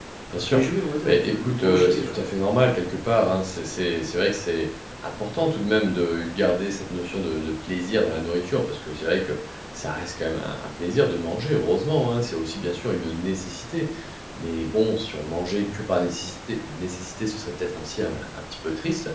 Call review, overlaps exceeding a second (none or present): present